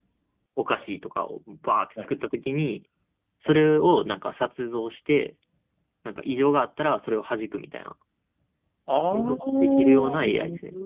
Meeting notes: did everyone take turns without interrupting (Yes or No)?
No